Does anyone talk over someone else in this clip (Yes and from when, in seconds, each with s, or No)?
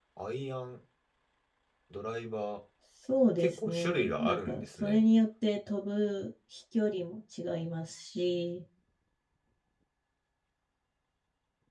Yes, from 3.4 s